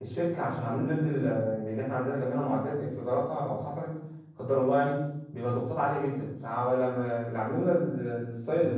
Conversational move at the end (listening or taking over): listening